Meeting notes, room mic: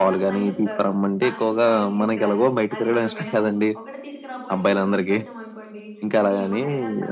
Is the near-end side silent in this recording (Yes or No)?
No